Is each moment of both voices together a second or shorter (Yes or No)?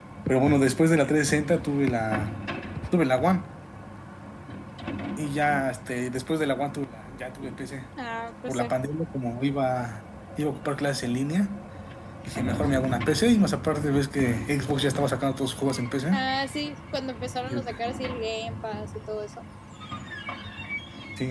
Yes